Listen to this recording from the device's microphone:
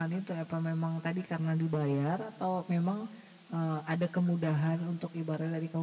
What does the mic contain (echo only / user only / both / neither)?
user only